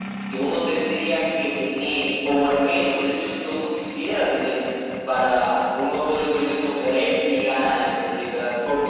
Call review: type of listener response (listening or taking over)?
taking over